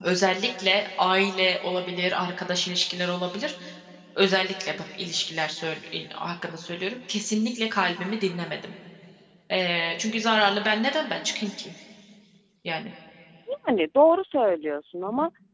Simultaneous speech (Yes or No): No